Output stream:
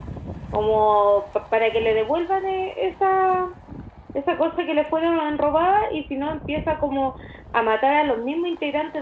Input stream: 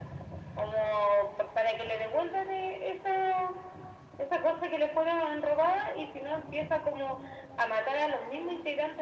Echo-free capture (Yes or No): No